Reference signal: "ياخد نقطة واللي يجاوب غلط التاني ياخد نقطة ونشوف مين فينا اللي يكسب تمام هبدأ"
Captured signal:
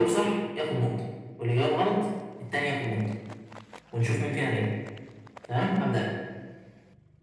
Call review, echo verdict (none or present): present